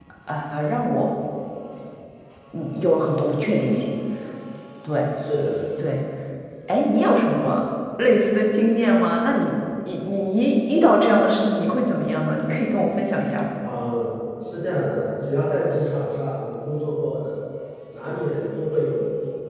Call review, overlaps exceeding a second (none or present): none